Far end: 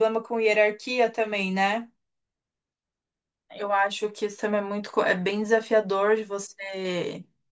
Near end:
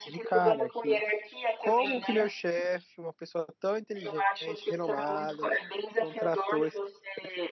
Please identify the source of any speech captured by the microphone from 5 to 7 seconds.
both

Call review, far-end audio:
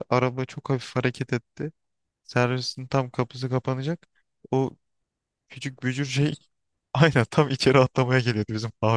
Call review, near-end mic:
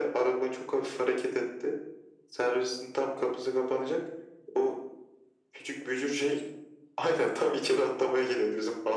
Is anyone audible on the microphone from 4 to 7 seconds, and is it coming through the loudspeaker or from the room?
echo only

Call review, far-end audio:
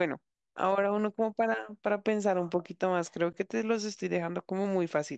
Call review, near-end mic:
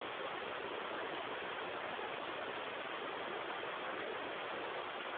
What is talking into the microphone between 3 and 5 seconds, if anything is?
neither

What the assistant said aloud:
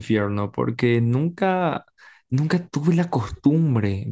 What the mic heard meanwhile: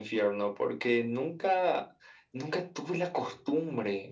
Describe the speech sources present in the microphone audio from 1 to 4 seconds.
echo only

